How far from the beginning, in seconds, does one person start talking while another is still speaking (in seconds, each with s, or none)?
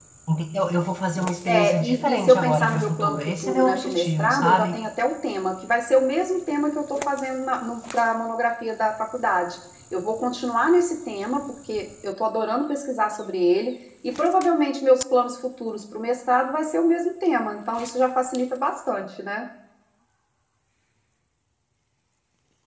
1.5 s